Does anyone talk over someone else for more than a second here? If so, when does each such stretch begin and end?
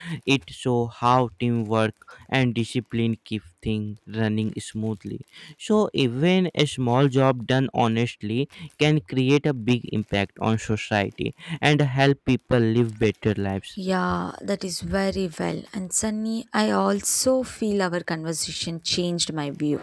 none

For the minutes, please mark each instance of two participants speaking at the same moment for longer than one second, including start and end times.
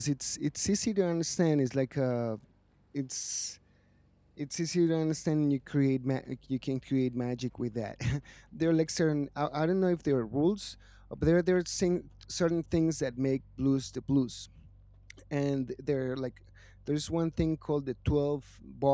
none

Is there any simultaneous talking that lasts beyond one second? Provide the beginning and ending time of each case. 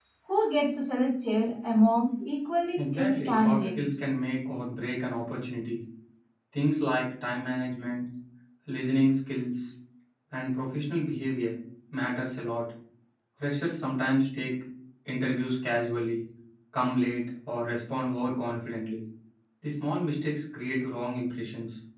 2.8-4.0

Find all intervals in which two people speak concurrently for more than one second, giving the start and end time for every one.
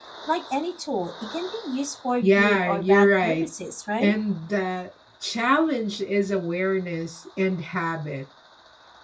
2.2-3.4

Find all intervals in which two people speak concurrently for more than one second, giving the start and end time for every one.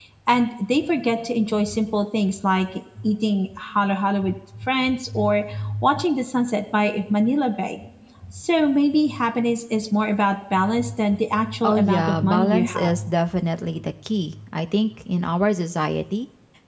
11.6-13.0

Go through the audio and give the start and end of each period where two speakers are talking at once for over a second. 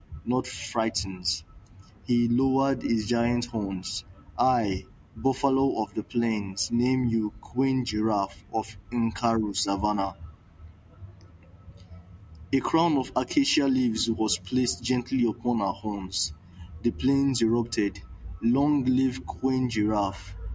none

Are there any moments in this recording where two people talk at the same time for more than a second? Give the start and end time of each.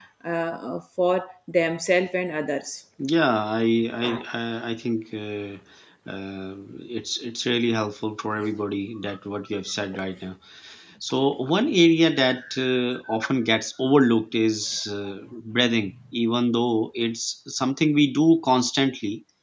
none

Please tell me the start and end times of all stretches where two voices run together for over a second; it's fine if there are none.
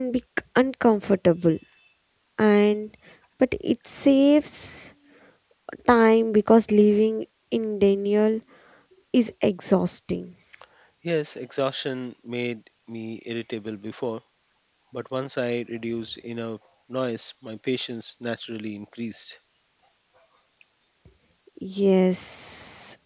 none

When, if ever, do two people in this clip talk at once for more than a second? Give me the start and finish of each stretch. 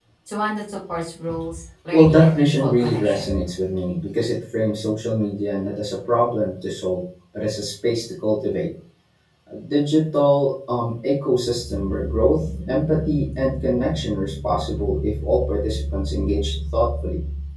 1.9-3.4

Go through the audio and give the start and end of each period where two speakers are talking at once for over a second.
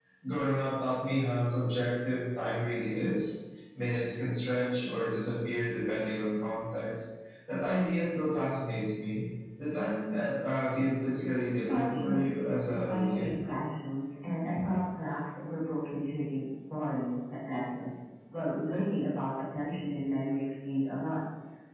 11.7-13.3

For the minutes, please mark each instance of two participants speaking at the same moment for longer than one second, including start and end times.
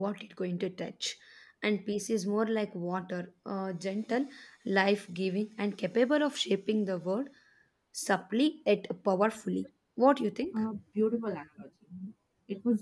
none

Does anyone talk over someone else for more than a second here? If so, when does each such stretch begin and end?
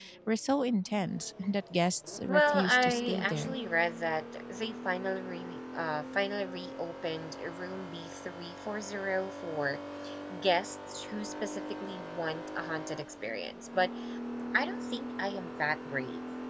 2.3-3.5

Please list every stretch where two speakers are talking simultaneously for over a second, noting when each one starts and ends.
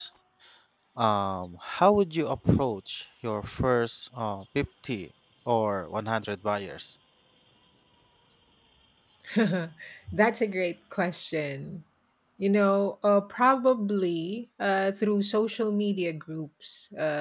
none

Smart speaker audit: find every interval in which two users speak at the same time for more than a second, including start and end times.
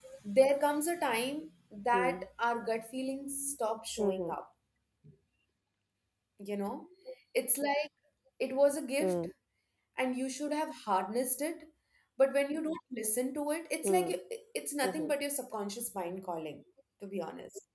none

